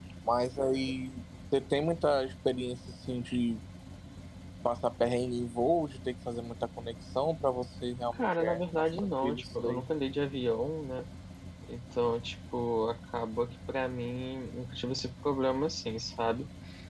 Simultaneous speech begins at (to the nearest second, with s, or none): 8 s